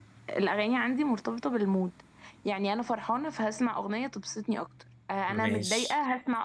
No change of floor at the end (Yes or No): Yes